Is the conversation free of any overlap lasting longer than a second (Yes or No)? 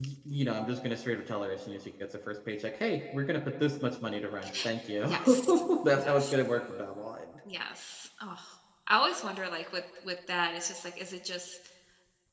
Yes